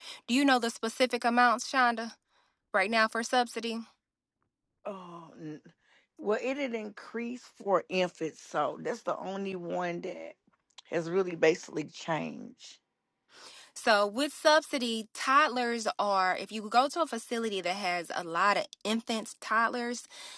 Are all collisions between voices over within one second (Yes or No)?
Yes